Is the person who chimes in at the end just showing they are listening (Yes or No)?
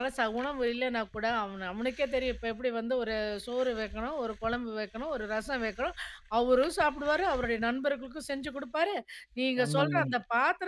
Yes